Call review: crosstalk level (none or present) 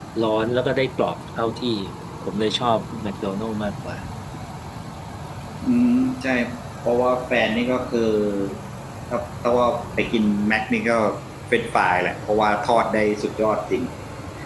none